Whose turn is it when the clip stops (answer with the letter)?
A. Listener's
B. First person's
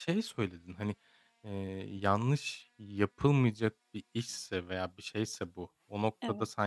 B